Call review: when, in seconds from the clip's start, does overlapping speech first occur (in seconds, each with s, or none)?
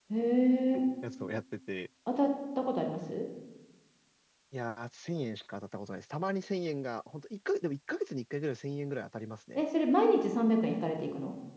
none